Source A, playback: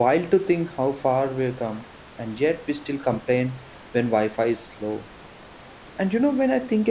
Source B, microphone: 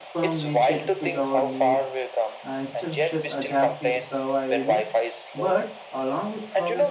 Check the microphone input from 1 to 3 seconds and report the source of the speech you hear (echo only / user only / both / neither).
both